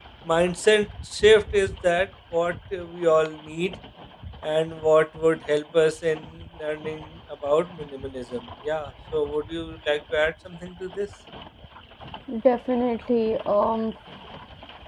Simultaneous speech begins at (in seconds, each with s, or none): none